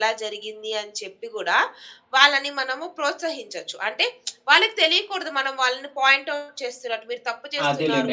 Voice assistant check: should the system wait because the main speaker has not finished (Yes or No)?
No